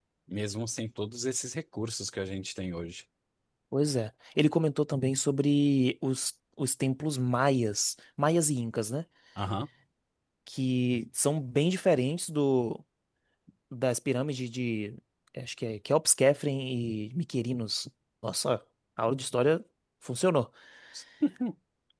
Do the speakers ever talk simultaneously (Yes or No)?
No